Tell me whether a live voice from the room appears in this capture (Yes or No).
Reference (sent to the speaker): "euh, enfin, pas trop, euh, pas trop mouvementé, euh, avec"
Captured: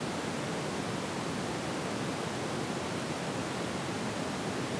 No